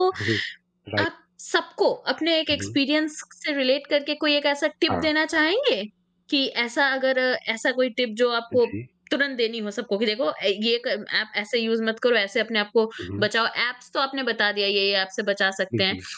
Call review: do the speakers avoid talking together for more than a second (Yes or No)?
Yes